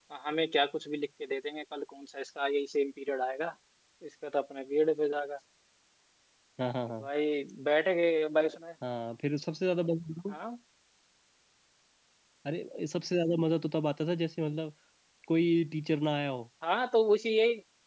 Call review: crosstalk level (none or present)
none